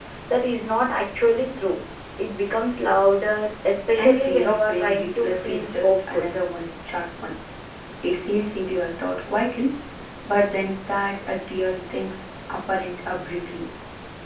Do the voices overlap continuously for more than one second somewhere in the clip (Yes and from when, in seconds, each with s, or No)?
Yes, from 4.0 s